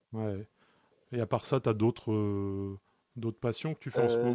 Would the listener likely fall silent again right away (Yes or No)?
No